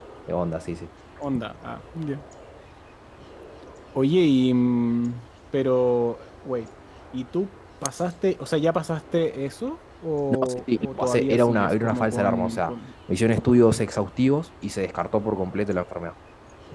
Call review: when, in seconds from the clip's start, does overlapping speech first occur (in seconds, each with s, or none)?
10.3 s